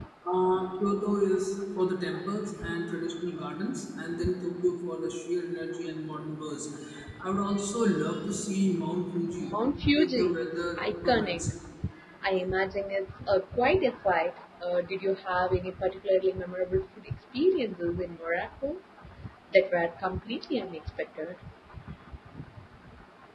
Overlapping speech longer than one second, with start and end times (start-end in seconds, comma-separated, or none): 10.0-11.4